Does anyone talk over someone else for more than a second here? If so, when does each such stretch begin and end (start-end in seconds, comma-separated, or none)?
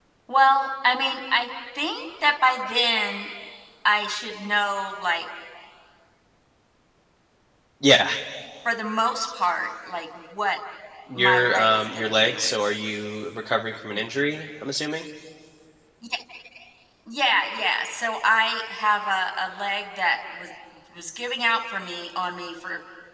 11.2-12.6